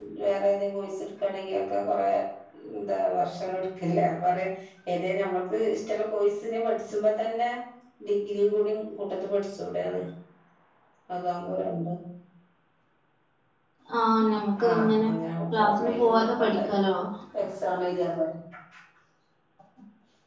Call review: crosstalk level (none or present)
present